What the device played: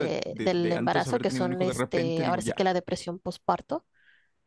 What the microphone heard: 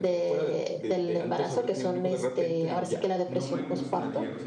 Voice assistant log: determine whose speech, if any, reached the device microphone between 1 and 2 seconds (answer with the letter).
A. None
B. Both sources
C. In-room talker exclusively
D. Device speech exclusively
D